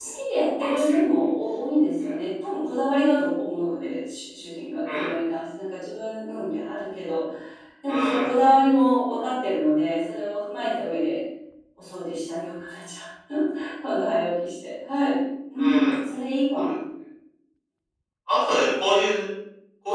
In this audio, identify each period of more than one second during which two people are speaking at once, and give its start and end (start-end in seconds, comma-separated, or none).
none